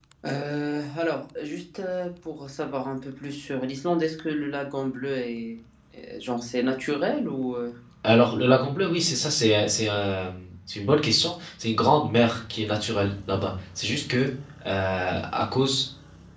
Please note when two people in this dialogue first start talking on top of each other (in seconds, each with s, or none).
none